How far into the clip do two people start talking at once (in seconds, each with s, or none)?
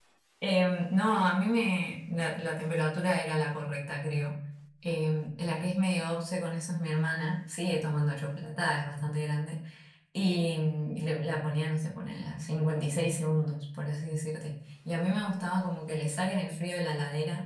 none